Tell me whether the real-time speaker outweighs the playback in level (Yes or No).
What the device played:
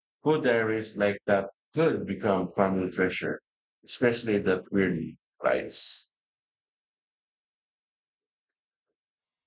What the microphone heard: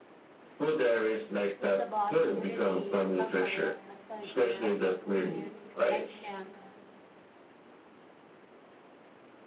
No